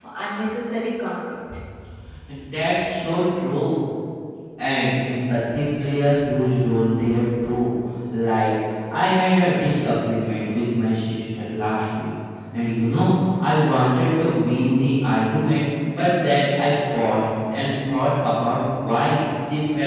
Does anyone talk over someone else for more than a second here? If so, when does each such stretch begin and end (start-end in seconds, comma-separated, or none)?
none